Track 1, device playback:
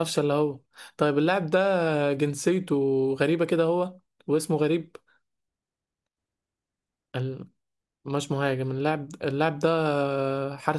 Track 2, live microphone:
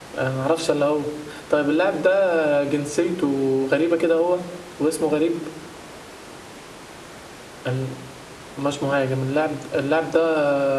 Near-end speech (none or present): none